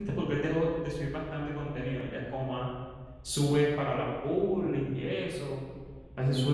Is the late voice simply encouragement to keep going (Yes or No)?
Yes